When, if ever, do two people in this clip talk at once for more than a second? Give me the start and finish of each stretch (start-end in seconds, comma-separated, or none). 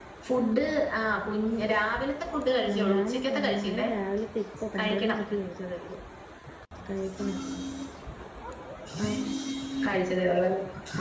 2.7-3.9